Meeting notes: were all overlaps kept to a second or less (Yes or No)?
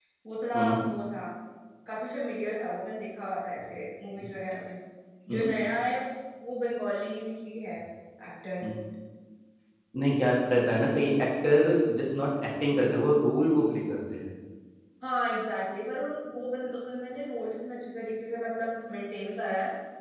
Yes